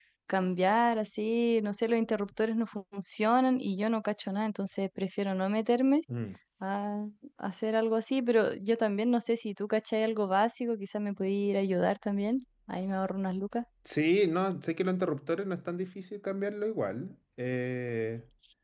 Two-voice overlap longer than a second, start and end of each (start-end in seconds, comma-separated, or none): none